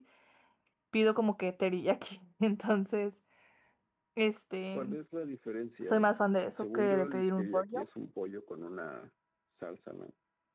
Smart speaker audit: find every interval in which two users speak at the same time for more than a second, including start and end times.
6.6-7.8

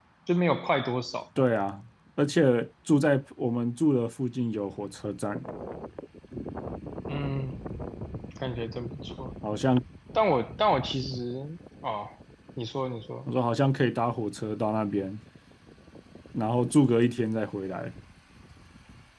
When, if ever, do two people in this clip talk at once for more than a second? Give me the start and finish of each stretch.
none

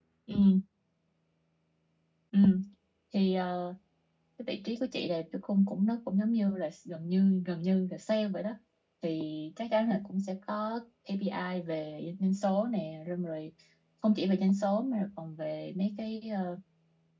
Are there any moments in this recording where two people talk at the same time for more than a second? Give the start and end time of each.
none

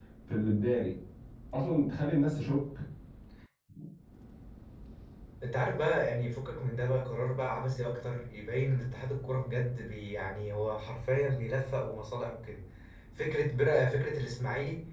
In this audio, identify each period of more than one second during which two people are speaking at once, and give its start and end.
none

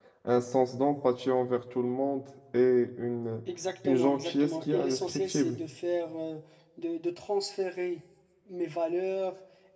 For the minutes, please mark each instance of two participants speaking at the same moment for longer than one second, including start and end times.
3.8-5.6

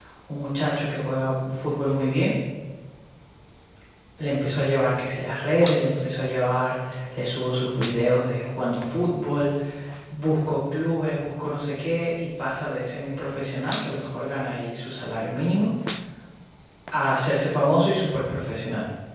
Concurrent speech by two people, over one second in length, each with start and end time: none

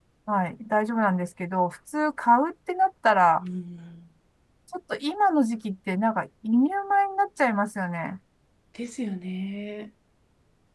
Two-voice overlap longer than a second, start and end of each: none

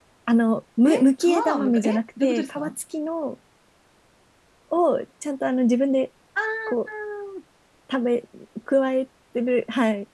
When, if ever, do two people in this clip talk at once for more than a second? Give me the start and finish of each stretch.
0.8-2.7

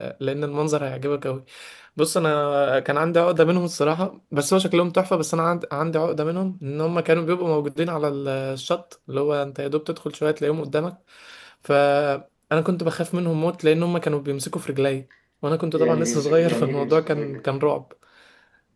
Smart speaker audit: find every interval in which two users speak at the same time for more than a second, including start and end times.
15.7-17.4

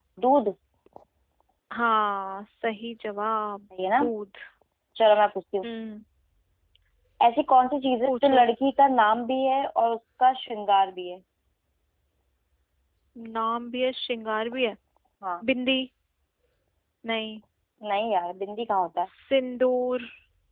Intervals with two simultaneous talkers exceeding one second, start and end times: none

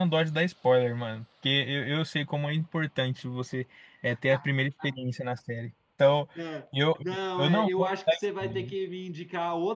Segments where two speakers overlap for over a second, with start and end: 7.4-8.7

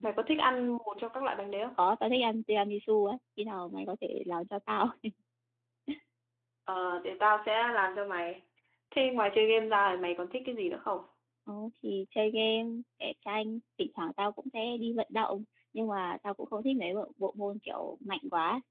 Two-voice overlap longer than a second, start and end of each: none

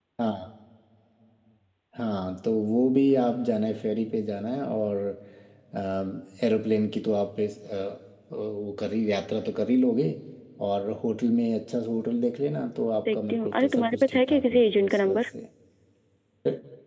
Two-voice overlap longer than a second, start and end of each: 13.1-15.2

